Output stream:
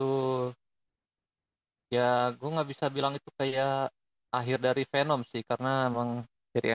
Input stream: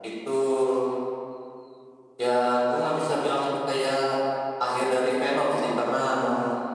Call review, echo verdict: present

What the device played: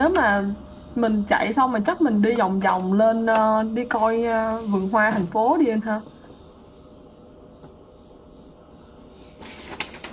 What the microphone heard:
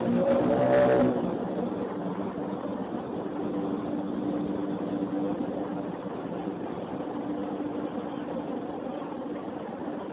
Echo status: none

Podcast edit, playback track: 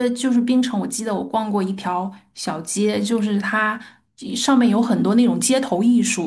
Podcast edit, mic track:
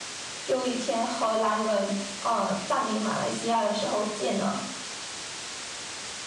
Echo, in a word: none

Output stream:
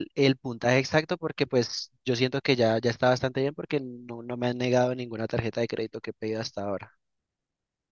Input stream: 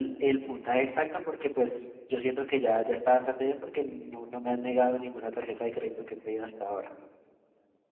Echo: present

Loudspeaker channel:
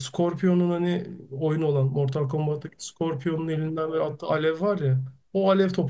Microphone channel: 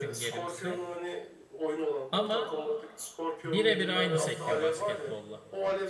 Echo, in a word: present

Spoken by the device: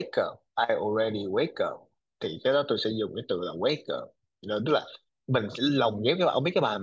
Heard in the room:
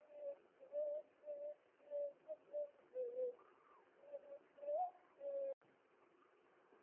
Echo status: none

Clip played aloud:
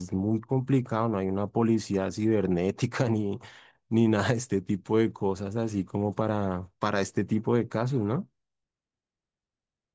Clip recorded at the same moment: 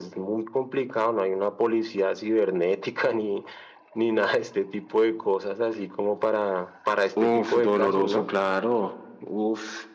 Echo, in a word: present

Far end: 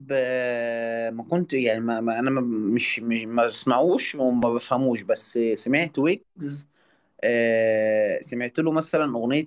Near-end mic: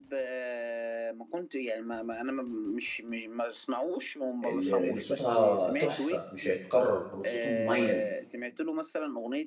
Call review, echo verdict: present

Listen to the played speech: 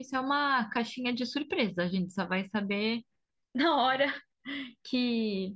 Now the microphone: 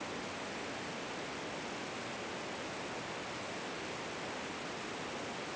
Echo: none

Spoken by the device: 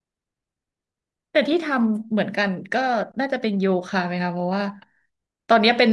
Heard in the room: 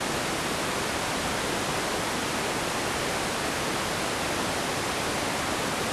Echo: none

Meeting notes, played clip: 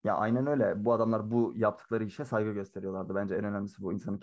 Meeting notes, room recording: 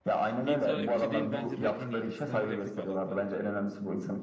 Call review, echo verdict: present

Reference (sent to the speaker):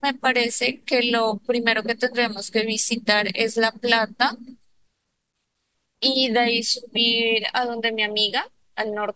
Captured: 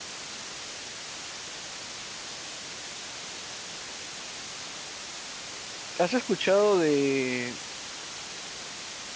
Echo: none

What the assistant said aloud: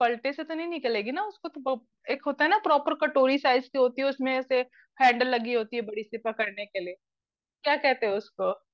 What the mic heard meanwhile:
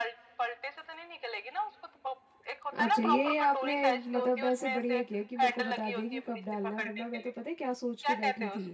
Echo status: present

